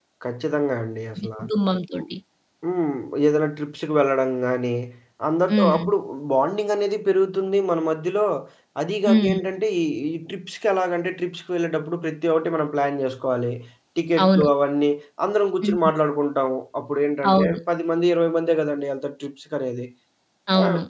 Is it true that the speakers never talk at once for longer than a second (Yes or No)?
Yes